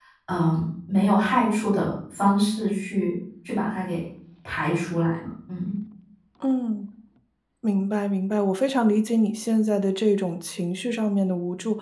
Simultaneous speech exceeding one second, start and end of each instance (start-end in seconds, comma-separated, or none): none